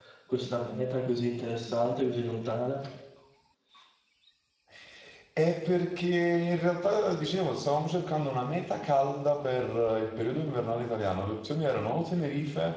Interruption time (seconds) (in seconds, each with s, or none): none